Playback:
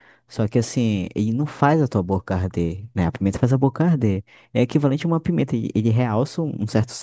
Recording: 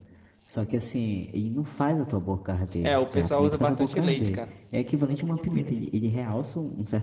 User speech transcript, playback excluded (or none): É, o pessoal usa bastante leite, cara.